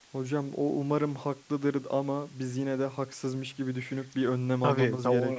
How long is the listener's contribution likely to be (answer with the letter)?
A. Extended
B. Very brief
A